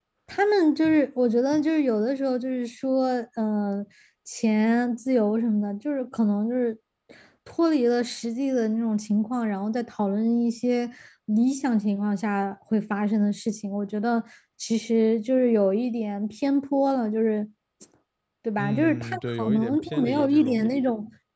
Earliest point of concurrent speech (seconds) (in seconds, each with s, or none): 18.6 s